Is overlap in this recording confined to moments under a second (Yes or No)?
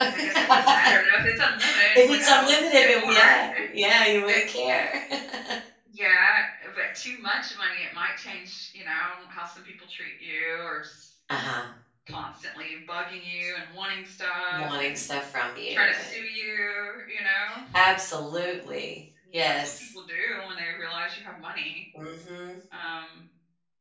No